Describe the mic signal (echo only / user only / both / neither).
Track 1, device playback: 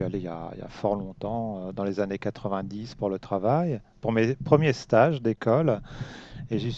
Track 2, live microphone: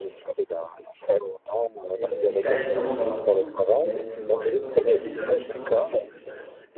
both